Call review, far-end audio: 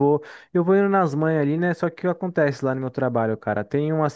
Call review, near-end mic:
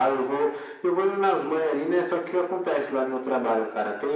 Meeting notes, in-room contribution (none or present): none